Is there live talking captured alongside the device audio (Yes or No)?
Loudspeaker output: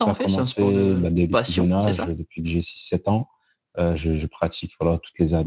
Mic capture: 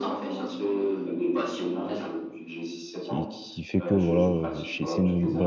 Yes